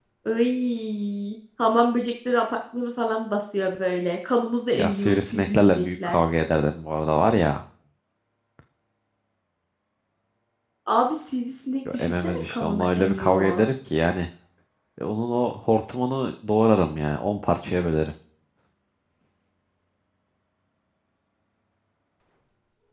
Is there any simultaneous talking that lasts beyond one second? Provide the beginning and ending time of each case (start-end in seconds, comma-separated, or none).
4.7-6.2, 11.9-13.7